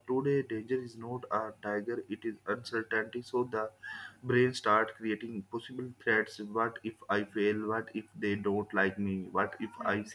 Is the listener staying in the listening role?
Yes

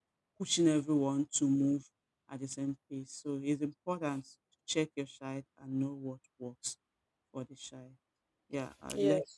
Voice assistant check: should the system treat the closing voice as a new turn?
Yes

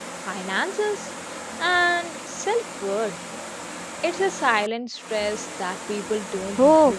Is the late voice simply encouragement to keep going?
No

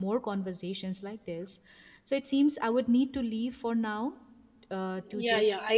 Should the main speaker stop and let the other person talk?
Yes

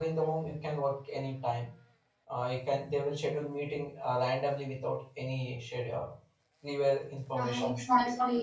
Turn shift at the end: Yes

